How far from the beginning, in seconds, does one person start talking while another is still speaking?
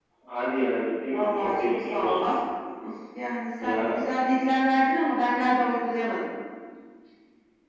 1 s

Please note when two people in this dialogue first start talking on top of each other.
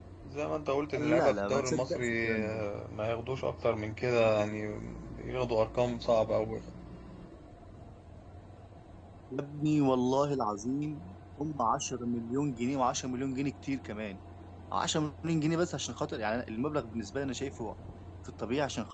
1 s

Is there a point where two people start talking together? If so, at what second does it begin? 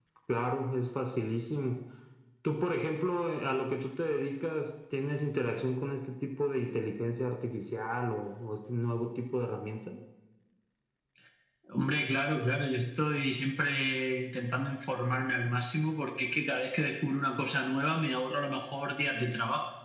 none

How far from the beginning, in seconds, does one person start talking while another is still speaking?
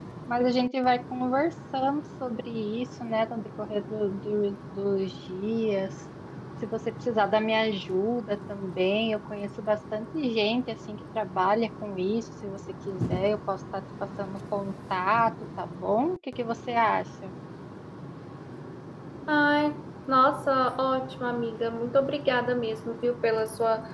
none

